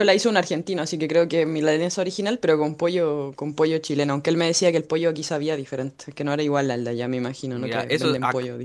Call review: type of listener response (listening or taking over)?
taking over